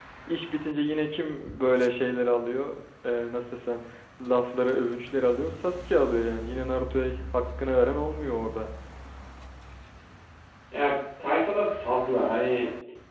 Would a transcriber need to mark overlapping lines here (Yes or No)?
No